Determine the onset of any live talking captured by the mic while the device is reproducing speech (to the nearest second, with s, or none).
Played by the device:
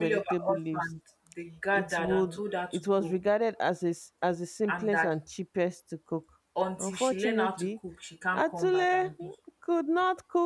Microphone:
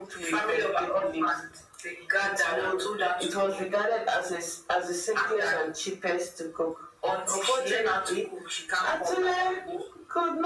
none